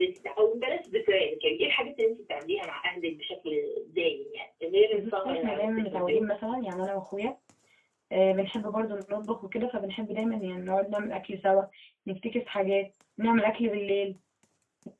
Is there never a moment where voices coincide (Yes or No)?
No